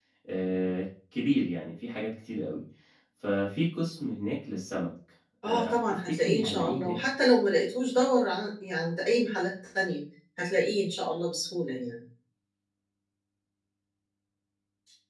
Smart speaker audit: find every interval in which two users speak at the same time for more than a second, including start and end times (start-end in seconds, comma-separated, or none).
5.4-7.0